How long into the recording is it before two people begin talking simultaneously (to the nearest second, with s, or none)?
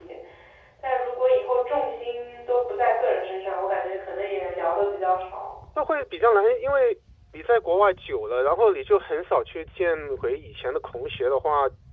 none